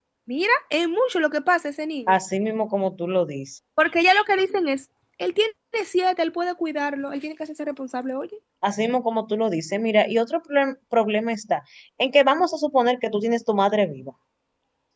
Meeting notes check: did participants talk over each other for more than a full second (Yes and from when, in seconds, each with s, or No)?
No